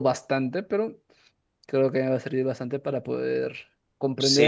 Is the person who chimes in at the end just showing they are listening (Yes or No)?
No